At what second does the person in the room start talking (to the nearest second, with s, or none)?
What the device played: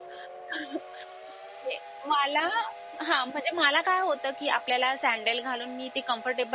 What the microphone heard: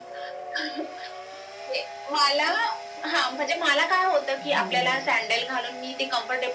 4 s